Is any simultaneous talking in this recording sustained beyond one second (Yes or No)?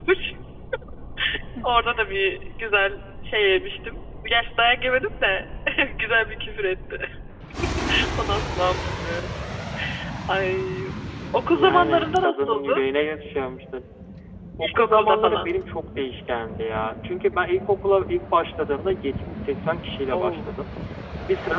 Yes